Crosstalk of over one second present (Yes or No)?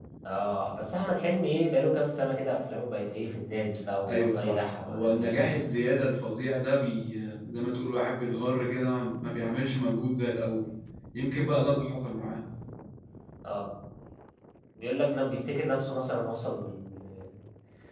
Yes